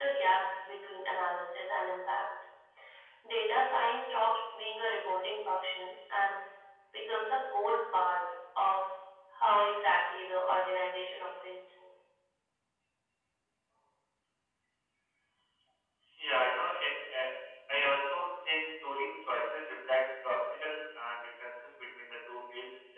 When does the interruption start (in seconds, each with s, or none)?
none